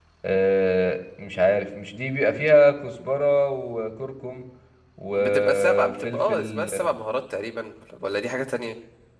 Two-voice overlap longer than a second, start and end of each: 5.2-6.7

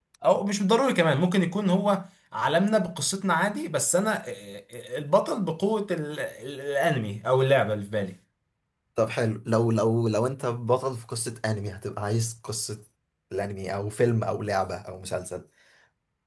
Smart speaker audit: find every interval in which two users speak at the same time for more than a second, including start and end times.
none

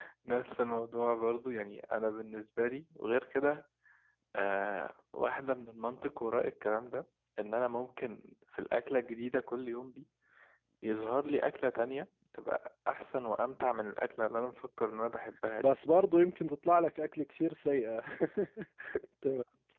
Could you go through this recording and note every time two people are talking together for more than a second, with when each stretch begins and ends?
none

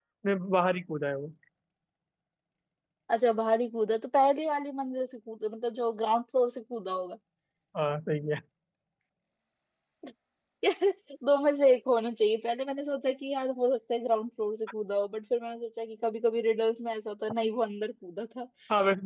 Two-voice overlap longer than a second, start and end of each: none

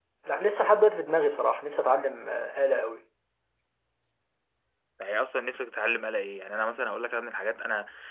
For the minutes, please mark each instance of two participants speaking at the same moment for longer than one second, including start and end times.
none

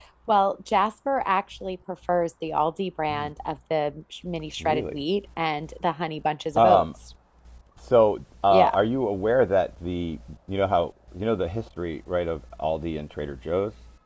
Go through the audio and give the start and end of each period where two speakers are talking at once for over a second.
none

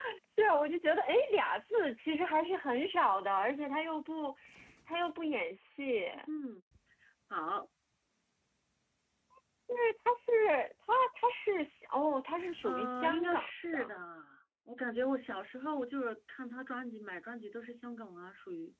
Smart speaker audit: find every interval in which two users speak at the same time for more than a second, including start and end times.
12.6-14.0

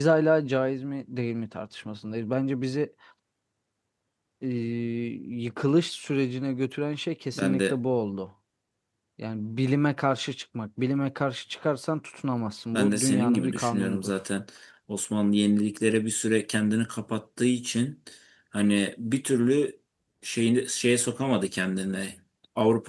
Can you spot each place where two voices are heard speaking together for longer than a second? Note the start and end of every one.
12.7-14.1

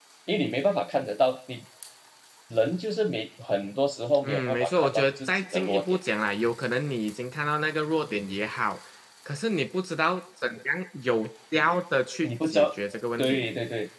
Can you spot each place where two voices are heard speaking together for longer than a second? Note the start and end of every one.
4.2-6.0

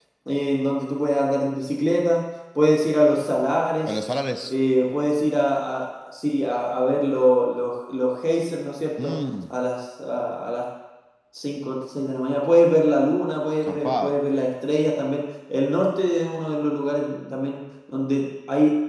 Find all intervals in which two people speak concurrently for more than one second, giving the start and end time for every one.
none

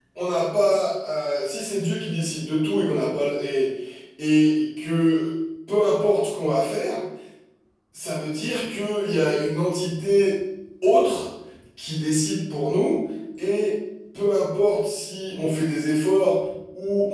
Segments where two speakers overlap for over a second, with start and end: none

